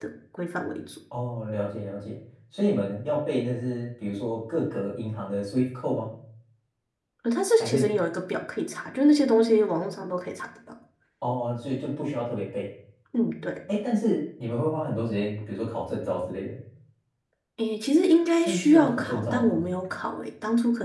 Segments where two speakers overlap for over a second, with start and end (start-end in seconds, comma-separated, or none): 18.4-19.6